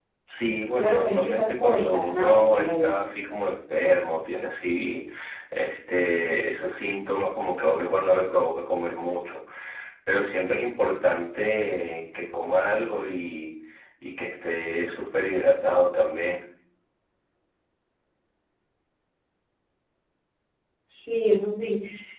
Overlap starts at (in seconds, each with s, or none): 0.8 s